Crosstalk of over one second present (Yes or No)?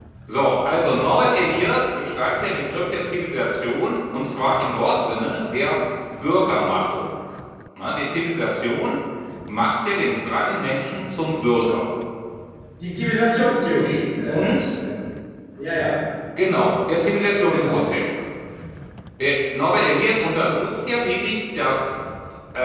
No